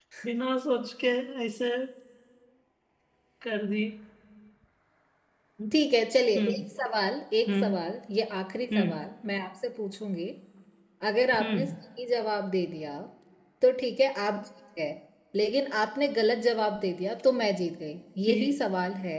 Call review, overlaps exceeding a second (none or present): none